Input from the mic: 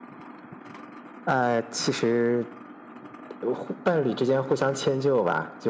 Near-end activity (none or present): none